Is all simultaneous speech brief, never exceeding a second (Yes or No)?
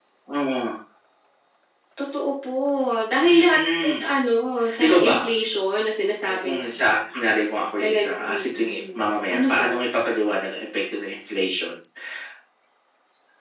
No